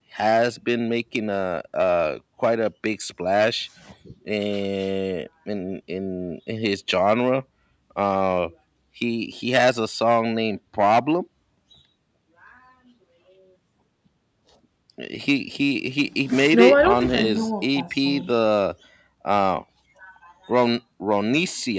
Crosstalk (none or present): present